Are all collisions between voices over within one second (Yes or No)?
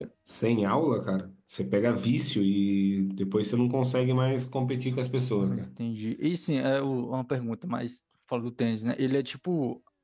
Yes